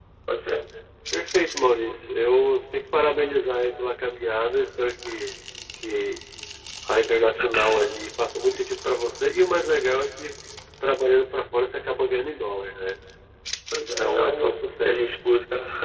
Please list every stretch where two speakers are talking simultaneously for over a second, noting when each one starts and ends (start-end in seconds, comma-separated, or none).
13.8-15.1